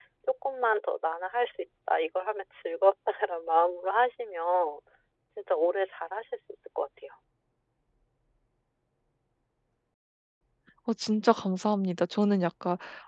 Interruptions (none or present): none